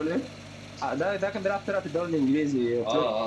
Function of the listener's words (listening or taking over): taking over